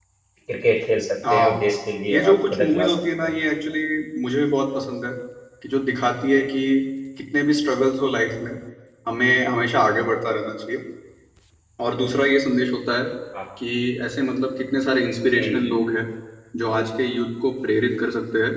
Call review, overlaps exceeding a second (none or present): present